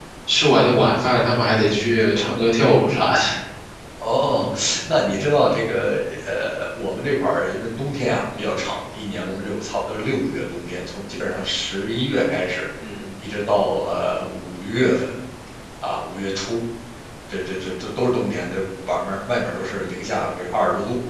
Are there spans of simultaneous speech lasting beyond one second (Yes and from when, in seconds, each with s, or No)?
No